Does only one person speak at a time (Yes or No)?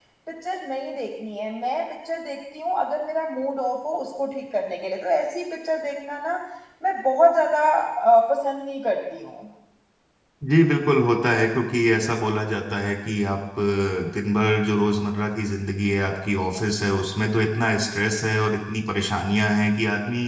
Yes